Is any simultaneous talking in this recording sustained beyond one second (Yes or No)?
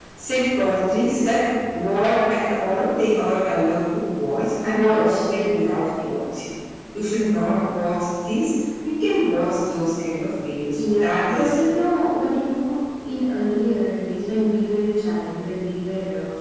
Yes